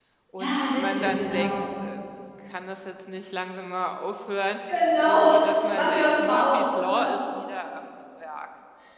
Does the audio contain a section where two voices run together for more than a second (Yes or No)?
Yes